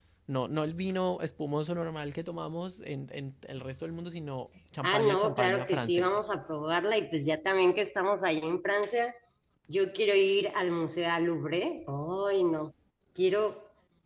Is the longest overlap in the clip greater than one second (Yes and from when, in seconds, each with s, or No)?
Yes, from 4.8 s